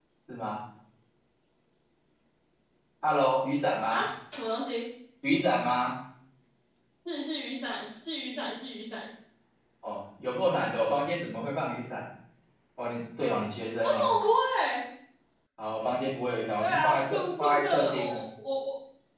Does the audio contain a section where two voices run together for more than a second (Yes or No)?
Yes